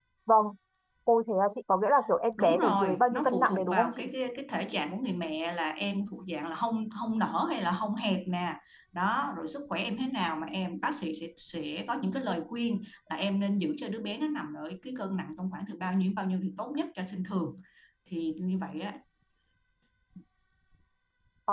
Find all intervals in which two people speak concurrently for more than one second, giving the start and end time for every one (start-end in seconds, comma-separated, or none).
2.4-4.0